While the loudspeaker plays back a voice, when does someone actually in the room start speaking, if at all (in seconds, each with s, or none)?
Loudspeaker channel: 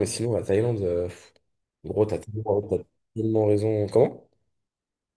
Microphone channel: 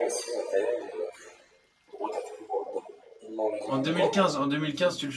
3.6 s